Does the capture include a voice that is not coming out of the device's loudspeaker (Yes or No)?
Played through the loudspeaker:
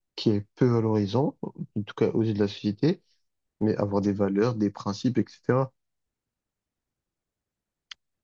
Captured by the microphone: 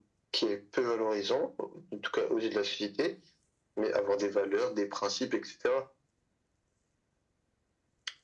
No